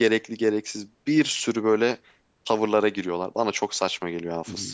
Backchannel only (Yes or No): No